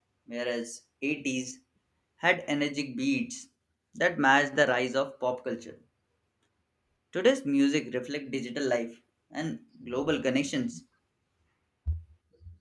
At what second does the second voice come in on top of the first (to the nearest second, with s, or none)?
none